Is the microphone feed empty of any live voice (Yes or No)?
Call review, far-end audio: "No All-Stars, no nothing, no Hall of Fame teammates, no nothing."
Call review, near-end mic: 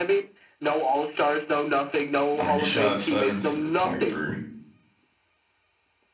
No